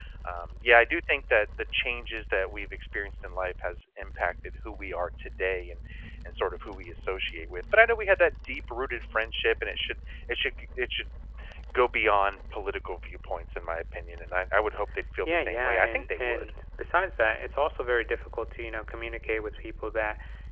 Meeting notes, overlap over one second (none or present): present